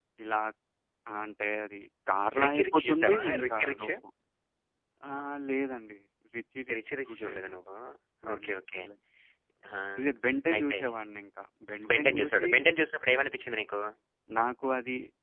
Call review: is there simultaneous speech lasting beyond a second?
Yes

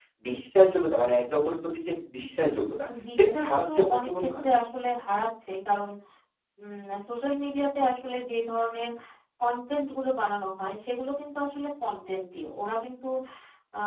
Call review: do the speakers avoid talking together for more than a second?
No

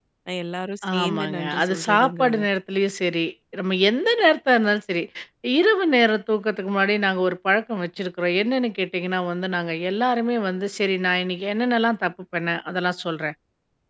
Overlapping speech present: Yes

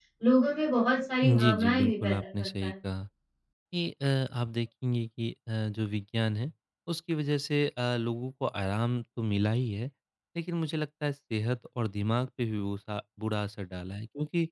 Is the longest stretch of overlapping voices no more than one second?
No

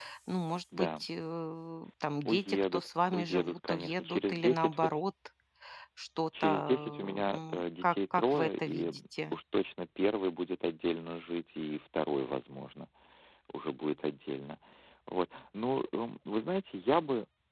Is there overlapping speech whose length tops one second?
Yes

